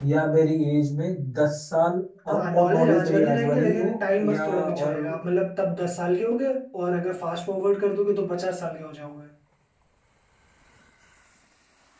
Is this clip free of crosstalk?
No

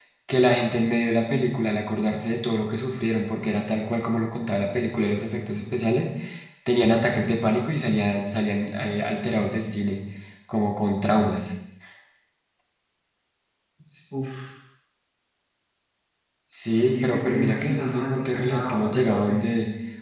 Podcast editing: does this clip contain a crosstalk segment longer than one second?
Yes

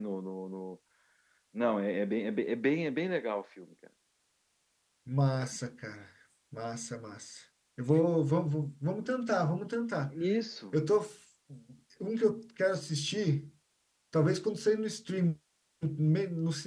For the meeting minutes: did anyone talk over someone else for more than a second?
No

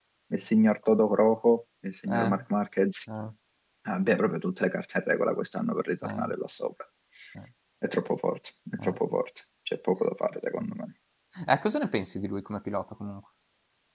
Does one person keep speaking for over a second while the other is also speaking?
No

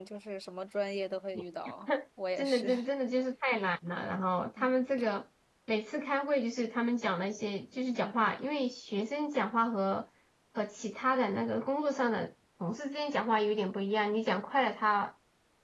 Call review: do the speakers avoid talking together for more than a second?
Yes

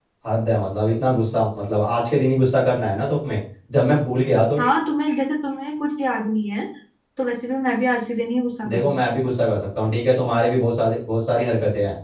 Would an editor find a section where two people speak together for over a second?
No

